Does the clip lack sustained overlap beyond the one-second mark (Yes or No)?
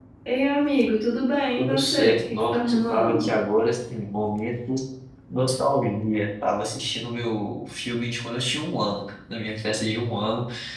No